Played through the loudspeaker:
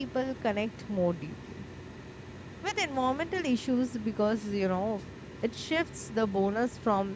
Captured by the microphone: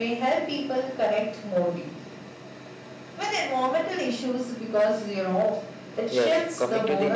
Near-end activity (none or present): present